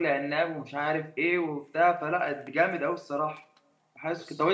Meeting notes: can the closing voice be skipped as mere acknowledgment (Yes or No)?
Yes